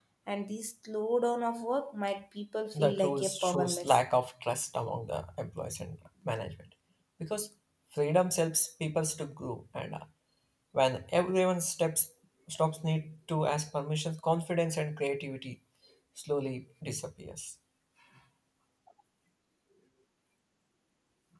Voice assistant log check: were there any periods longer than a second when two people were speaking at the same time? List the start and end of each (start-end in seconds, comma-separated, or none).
2.8-4.0